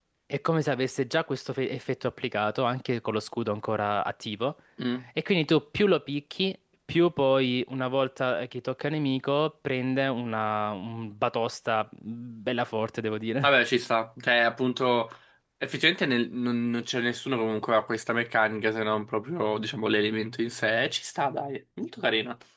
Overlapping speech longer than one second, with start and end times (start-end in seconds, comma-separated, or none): none